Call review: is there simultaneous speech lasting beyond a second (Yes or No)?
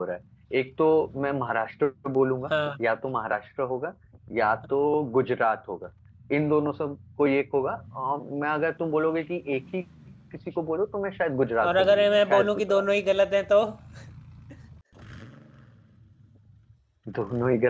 Yes